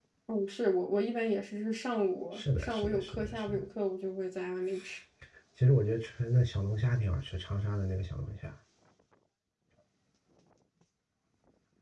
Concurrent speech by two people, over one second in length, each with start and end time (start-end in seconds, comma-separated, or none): 2.4-3.6